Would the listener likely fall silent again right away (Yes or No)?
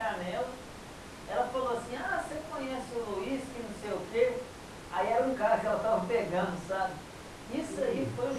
Yes